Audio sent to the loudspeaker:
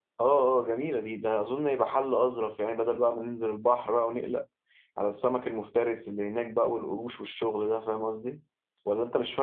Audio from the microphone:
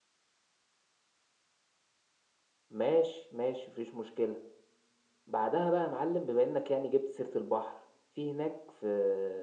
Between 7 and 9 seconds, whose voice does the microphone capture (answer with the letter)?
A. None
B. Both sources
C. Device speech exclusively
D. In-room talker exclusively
D